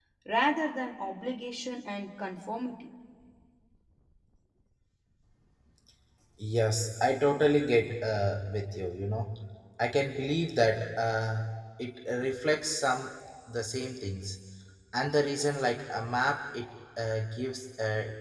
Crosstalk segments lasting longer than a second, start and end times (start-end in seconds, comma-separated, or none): none